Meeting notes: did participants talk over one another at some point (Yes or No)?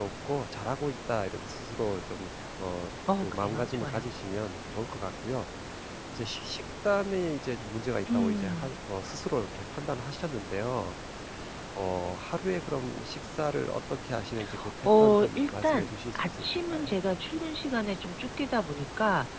Yes